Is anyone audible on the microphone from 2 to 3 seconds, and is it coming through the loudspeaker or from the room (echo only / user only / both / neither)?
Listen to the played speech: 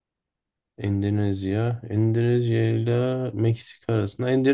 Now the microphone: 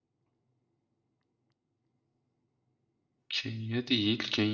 neither